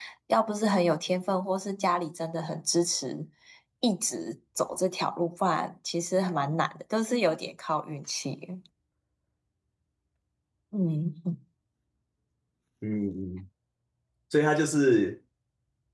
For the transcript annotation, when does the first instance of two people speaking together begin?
none

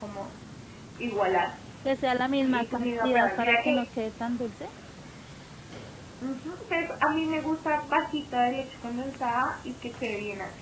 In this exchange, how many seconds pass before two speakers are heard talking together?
2 s

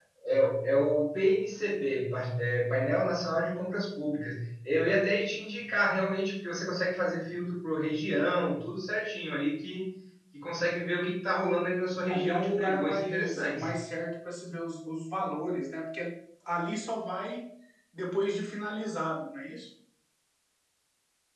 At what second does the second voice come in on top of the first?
12 s

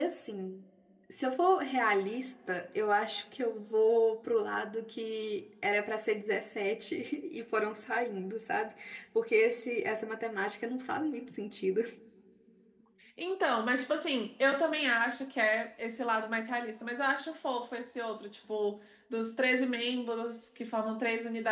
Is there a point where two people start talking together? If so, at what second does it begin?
none

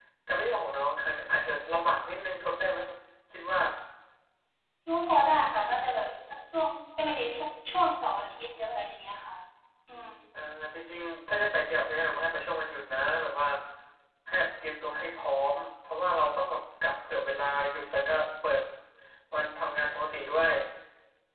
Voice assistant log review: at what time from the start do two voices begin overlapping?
none

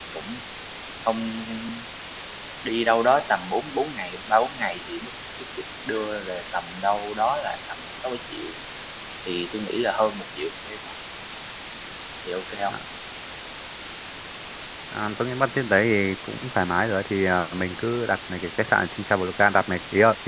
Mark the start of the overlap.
none

